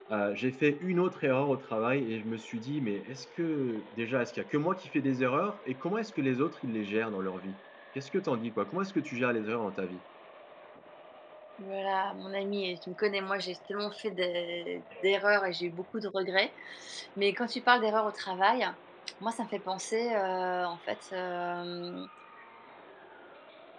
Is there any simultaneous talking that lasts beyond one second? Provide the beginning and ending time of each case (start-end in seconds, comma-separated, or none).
none